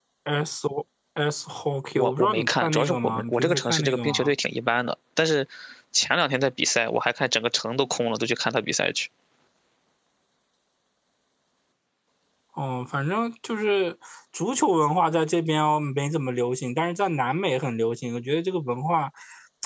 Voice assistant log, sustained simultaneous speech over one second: present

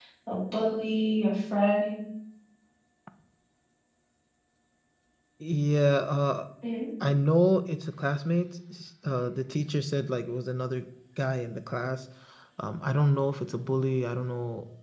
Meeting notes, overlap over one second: none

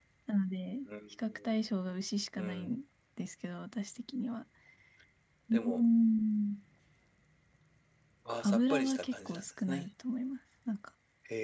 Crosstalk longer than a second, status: present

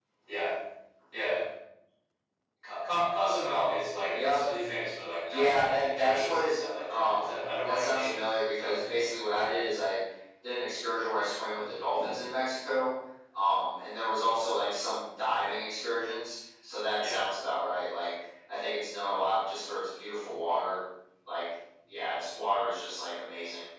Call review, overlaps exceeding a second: present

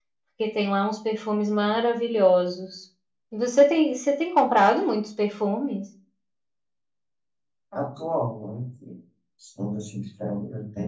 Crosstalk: none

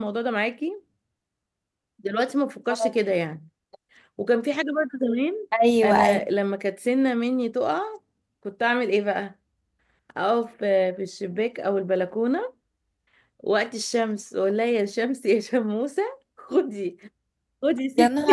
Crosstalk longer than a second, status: none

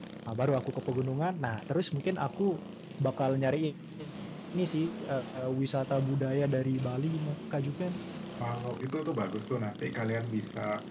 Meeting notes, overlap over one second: none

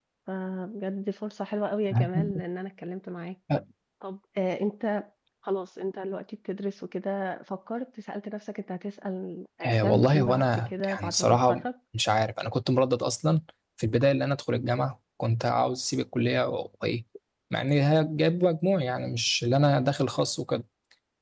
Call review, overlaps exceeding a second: present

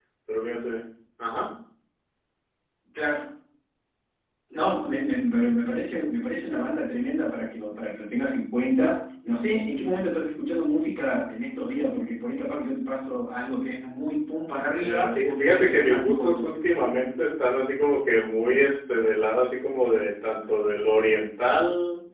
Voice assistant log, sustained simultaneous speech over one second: present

